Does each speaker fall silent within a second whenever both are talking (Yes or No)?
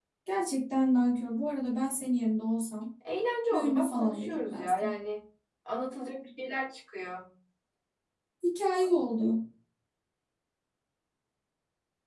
No